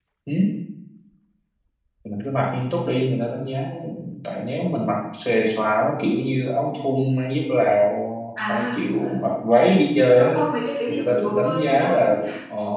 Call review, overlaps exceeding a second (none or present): present